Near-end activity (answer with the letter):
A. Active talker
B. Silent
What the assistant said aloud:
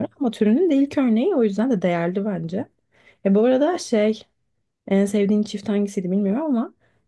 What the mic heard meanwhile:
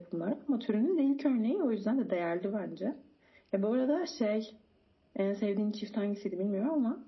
B